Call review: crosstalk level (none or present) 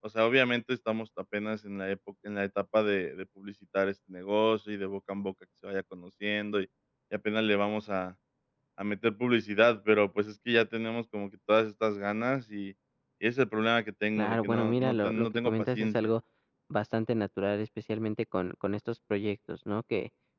present